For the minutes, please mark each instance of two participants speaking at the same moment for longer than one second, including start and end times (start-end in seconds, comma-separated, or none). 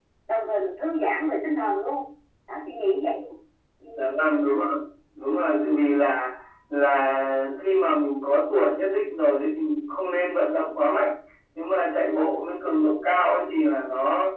none